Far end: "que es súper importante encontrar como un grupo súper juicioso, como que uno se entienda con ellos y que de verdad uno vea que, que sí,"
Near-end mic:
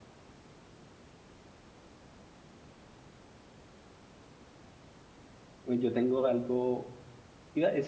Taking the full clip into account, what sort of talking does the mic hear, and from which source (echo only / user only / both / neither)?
user only